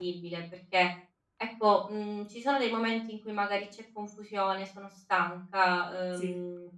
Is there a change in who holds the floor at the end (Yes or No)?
No